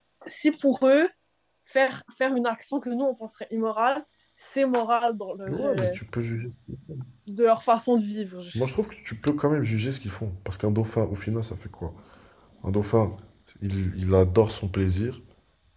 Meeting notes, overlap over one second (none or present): none